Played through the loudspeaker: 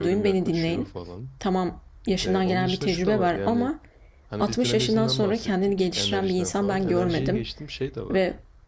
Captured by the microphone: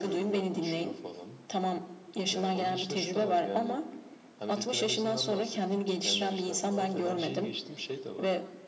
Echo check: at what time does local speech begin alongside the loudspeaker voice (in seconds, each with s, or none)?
none